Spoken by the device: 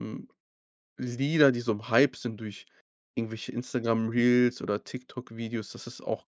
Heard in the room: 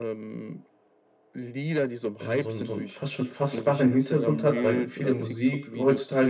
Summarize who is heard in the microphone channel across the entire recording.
both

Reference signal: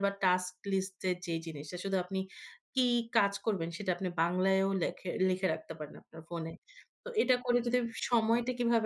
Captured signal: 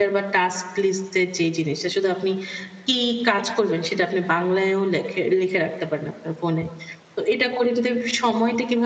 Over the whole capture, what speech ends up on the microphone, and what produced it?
echo only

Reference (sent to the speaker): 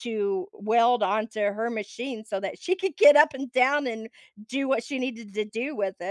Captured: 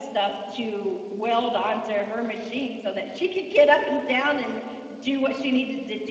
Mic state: echo only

